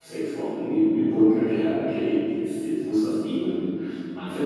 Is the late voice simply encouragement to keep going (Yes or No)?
No